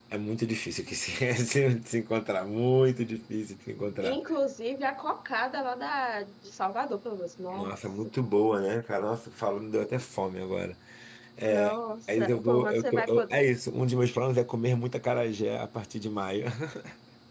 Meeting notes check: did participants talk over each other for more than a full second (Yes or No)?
Yes